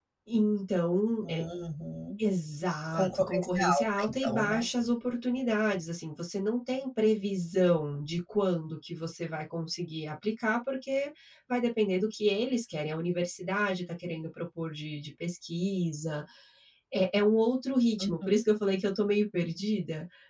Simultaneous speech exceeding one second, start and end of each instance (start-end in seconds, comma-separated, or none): 2.9-4.7